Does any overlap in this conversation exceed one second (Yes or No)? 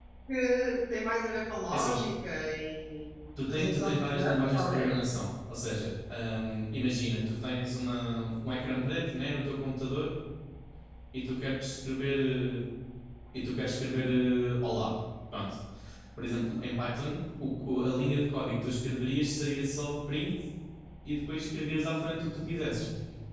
Yes